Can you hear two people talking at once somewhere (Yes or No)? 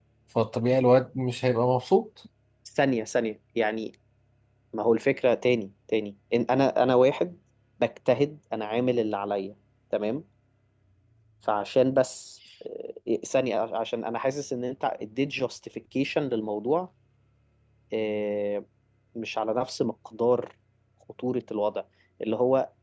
No